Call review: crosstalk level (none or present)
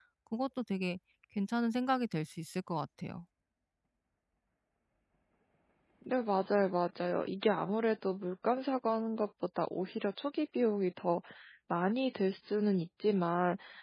none